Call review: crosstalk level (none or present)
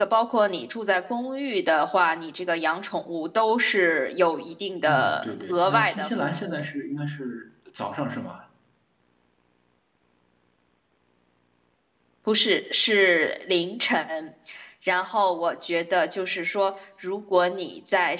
present